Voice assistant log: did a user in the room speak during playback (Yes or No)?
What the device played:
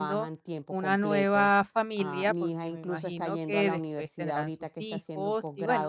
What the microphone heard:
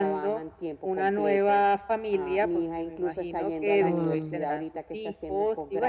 Yes